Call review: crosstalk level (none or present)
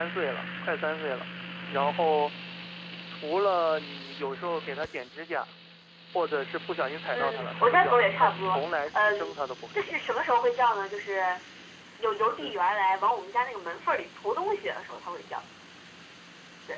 present